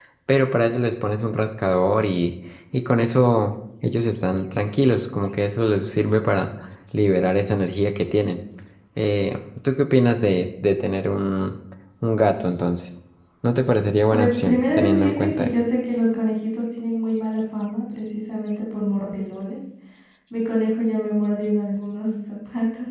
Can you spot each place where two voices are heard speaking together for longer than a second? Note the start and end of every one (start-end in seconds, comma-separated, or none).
14.1-15.6